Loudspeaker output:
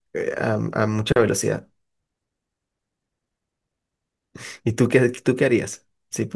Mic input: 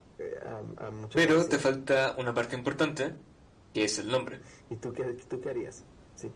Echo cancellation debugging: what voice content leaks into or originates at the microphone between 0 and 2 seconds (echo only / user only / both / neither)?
both